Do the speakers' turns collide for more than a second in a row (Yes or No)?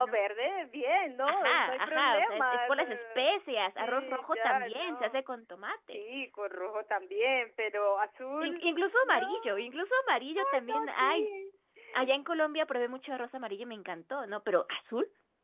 Yes